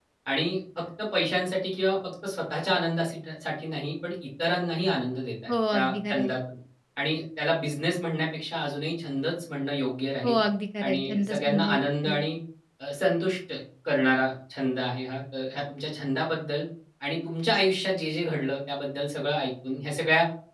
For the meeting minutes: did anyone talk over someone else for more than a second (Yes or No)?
Yes